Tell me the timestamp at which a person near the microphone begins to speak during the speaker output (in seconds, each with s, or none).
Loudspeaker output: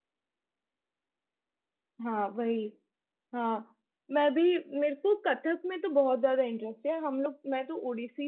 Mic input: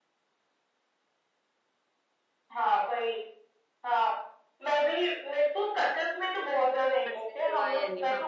7.0 s